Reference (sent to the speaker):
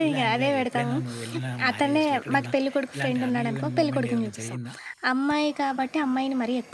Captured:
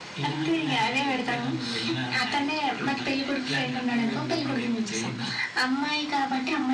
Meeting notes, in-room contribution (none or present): none